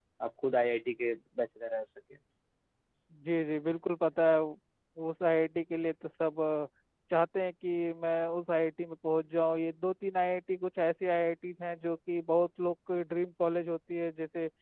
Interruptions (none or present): none